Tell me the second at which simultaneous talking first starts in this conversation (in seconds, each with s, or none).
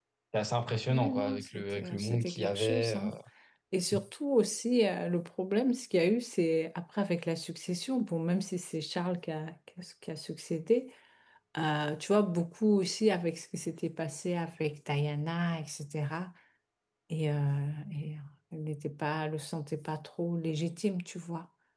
0.9 s